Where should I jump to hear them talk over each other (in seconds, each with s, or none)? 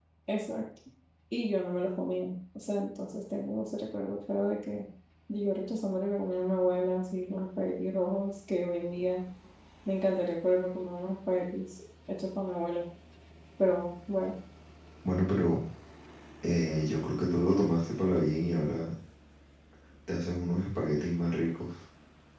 none